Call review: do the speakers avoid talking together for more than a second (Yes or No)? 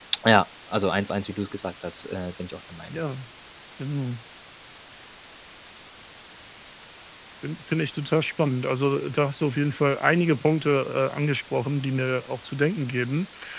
Yes